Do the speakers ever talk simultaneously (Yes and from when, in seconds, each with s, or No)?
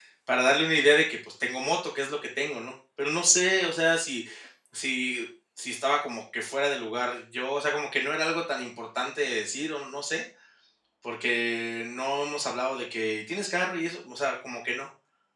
No